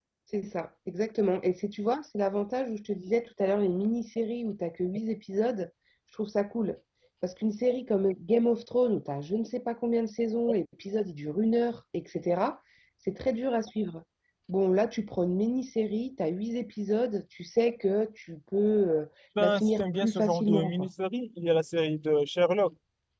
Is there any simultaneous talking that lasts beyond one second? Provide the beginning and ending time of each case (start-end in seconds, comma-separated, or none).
19.4-20.9